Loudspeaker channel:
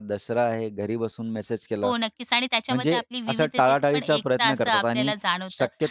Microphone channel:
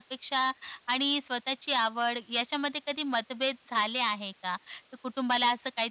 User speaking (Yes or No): Yes